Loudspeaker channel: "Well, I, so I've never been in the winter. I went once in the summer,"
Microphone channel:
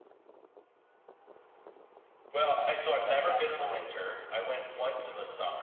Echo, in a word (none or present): present